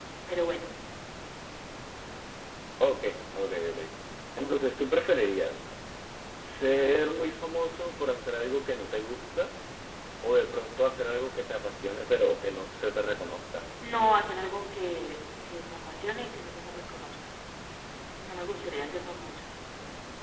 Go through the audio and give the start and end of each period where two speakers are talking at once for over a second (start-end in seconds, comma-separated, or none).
none